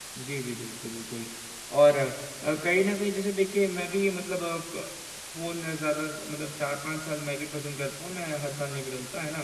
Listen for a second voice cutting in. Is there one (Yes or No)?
No